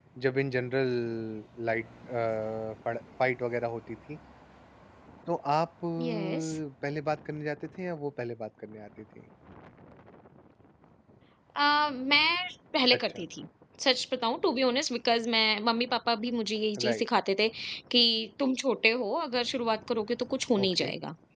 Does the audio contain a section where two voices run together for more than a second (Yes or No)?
No